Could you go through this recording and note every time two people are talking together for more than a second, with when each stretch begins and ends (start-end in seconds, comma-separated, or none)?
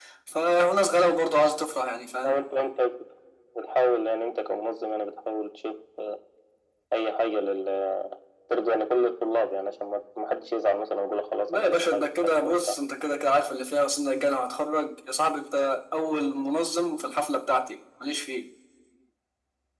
11.5-12.8